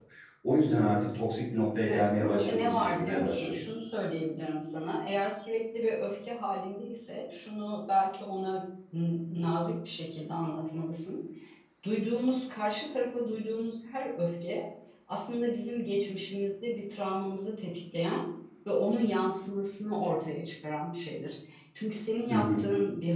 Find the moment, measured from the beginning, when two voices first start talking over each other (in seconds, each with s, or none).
1.8 s